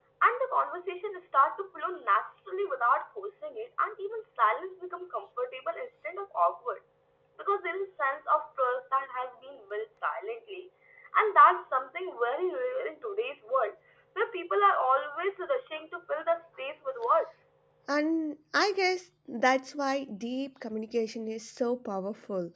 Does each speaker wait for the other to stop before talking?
Yes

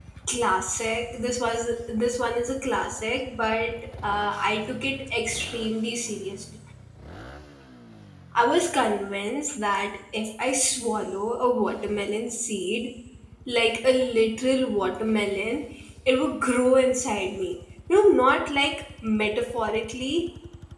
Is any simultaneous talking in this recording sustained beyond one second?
No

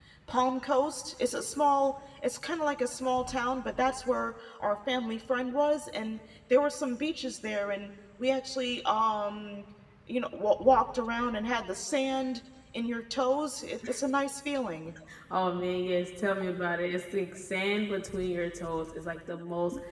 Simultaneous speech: No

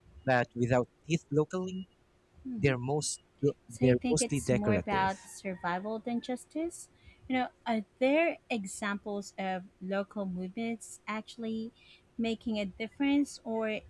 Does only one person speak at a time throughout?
No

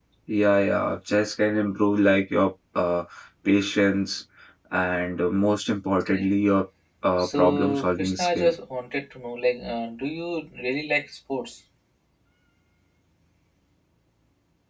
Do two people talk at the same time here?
Yes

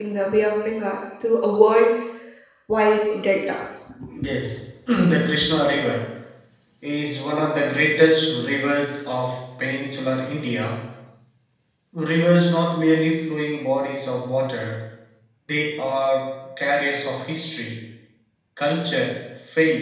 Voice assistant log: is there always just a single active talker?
Yes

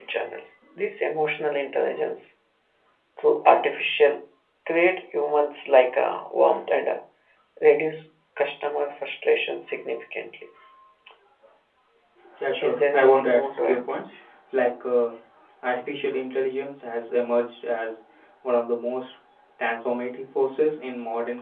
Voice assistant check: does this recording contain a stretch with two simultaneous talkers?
Yes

